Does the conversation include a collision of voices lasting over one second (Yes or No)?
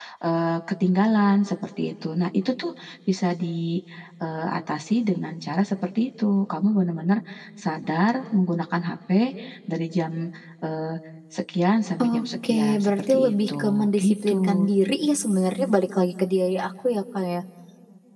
Yes